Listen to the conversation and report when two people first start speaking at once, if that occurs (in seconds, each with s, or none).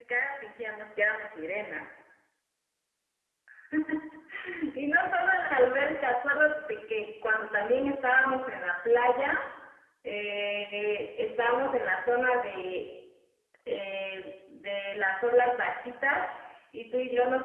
none